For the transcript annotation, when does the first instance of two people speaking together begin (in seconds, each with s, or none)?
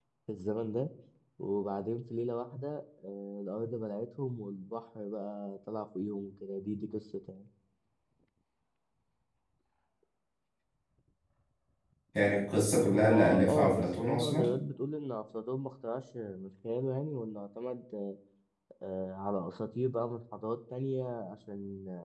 12.9 s